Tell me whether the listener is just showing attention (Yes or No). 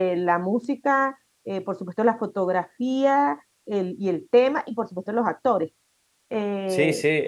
No